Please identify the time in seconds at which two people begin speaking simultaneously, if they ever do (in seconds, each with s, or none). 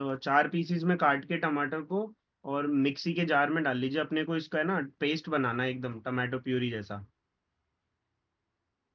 none